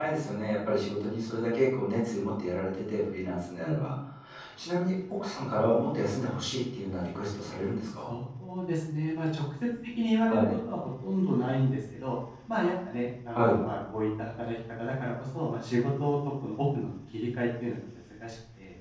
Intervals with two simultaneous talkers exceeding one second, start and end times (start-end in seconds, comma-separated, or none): none